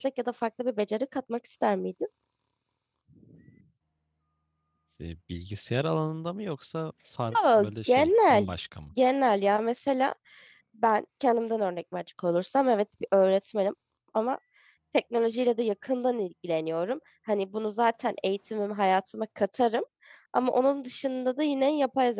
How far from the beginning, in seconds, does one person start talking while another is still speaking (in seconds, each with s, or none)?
7.3 s